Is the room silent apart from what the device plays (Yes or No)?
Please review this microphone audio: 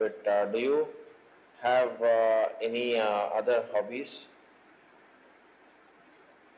Yes